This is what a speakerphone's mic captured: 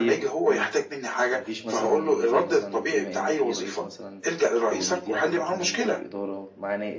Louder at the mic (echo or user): echo